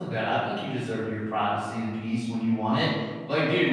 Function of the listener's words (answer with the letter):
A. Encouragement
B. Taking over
A